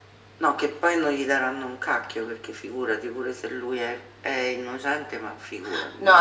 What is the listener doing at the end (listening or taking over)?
taking over